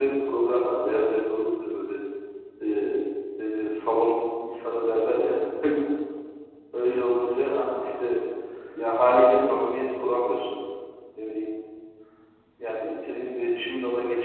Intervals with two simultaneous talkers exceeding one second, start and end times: 6.7-8.2

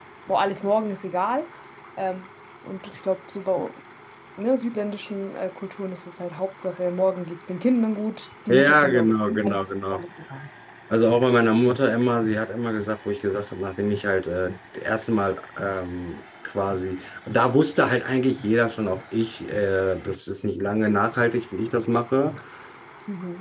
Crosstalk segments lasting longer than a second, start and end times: 8.5-10.0

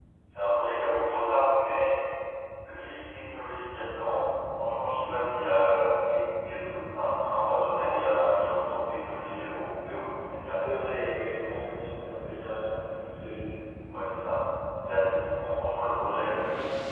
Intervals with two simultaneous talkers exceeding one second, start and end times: none

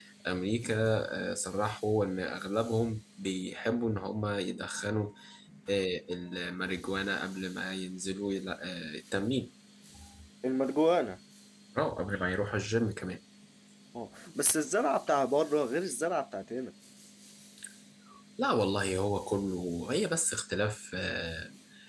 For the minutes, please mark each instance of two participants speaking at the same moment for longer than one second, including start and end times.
none

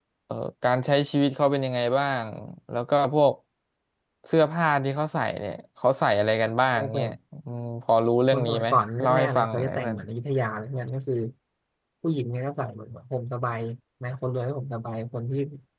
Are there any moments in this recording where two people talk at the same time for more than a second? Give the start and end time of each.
8.3-10.0

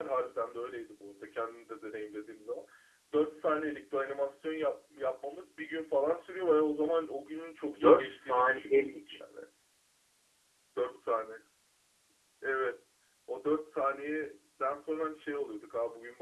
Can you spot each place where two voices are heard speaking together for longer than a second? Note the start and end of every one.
7.7-9.2

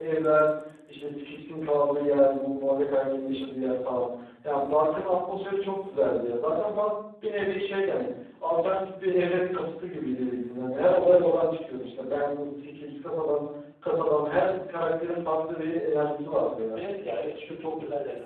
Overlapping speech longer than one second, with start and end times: none

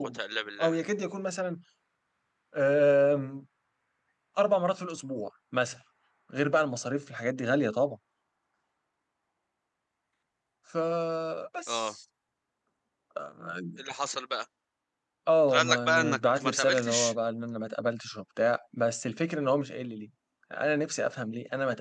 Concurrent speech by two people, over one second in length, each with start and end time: 15.5-17.1

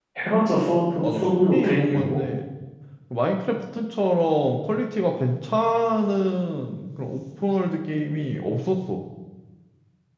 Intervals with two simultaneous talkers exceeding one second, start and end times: 1.0-2.2

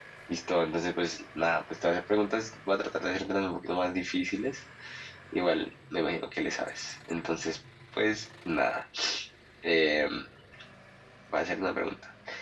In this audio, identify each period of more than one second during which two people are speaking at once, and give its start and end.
none

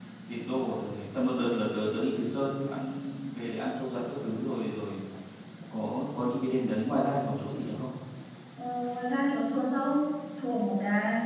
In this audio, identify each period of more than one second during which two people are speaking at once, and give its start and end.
none

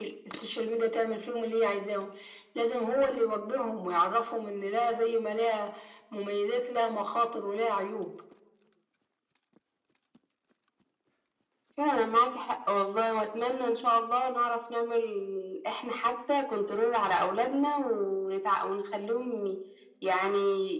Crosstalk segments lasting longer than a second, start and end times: none

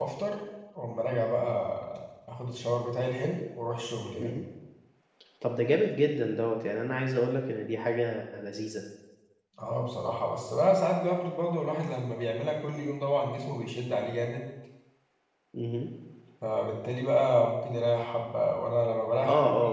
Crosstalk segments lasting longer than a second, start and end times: none

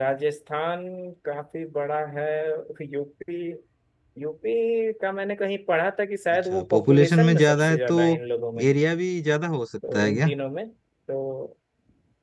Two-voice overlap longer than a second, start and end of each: 6.5-8.0

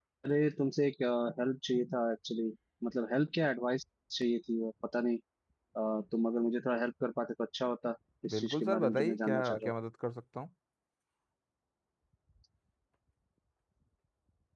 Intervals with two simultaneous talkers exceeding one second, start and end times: 8.3-9.7

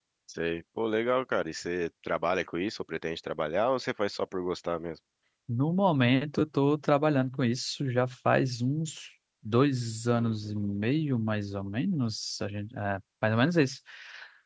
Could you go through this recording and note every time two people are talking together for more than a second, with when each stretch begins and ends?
none

